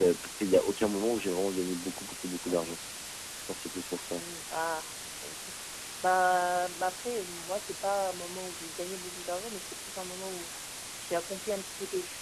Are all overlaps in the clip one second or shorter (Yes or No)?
Yes